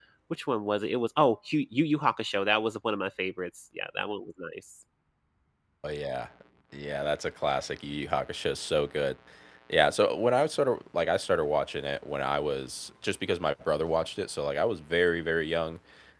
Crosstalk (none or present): none